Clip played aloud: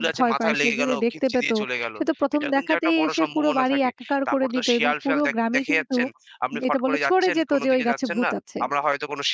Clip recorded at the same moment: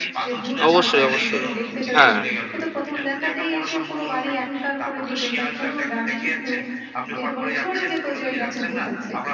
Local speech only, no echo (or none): অবশ্যই, অবশ্যই। হ্যাঁ,